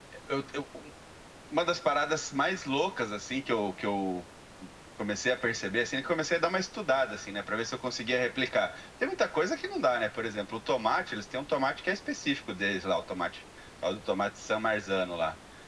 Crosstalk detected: No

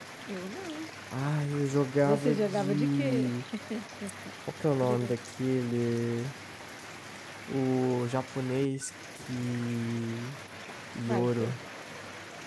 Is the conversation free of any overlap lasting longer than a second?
No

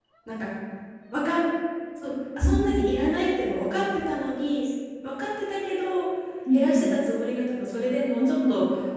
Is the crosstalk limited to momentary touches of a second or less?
Yes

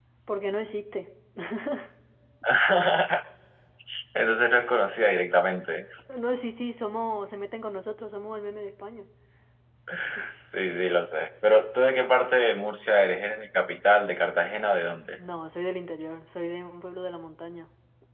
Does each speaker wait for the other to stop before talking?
Yes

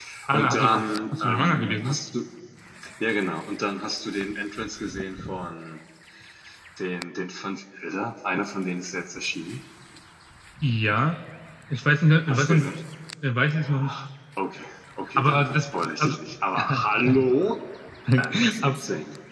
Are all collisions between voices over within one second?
No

